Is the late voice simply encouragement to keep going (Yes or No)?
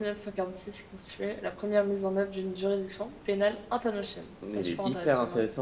No